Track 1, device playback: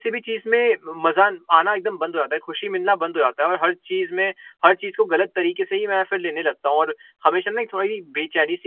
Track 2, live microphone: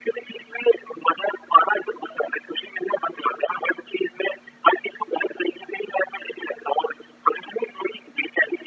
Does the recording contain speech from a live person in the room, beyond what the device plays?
No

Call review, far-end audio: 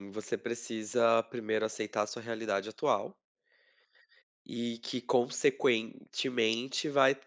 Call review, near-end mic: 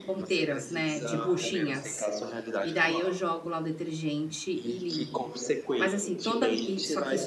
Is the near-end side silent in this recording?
No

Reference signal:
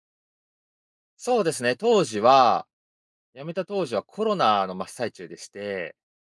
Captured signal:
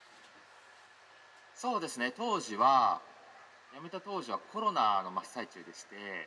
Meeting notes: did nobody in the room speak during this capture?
Yes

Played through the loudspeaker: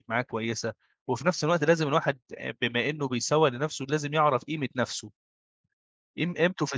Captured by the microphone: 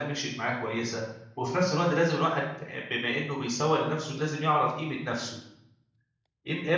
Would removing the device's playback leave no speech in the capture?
Yes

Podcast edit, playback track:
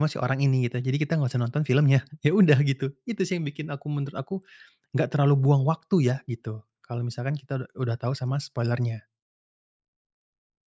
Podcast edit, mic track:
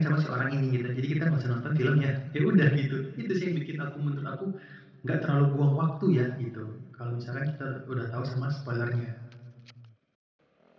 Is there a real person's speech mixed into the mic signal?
No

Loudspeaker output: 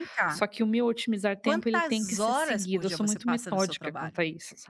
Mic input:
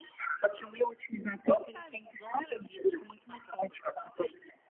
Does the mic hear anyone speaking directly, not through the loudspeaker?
No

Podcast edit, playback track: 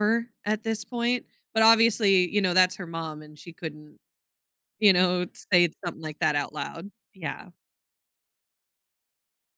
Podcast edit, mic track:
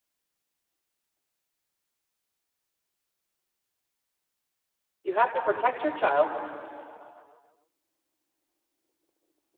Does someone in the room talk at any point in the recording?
Yes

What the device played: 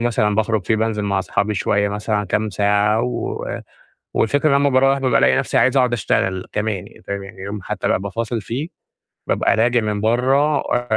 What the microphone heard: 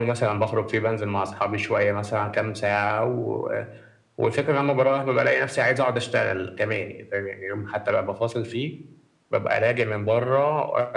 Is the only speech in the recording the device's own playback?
Yes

